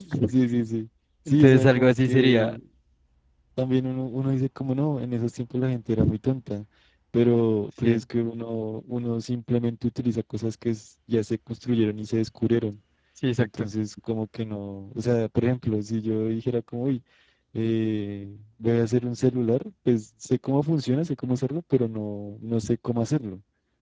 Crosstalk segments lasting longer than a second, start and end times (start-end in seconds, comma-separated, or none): 1.3-2.6